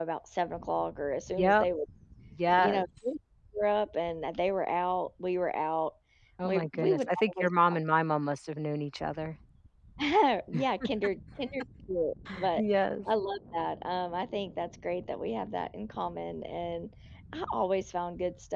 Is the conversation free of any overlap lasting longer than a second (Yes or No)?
No